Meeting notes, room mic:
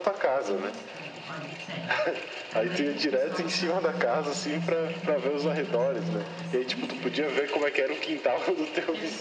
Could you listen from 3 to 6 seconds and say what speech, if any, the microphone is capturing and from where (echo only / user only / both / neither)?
both